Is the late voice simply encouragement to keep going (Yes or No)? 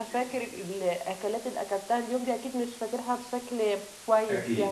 No